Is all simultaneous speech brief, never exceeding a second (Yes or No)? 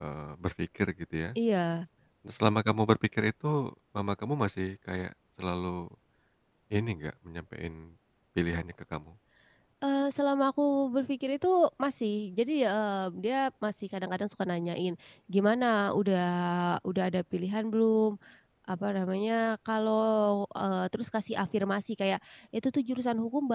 Yes